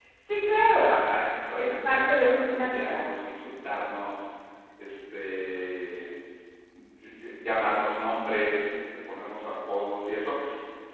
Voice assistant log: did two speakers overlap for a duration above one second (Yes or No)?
Yes